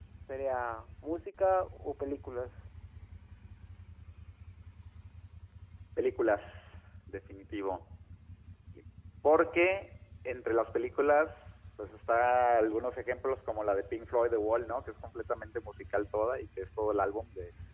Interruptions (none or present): none